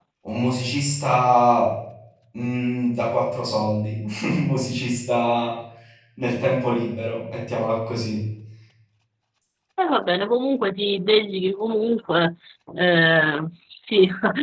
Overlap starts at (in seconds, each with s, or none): none